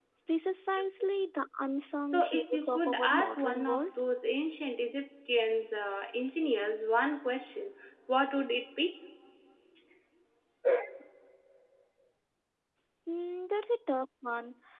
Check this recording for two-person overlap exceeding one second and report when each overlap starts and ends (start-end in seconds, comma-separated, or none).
2.0-3.8